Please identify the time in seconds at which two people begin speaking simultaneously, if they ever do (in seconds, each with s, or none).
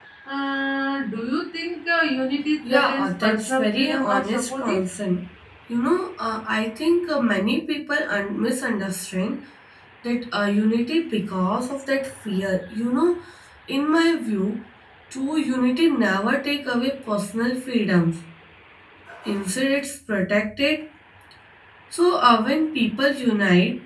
2.6 s